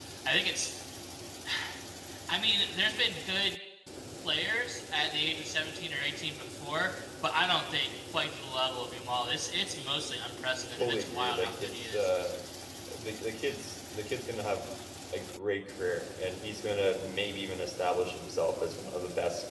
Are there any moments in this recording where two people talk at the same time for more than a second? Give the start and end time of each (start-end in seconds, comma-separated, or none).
10.7-12.1